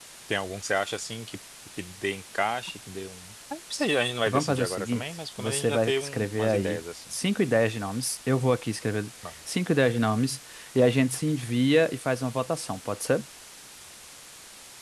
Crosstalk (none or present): present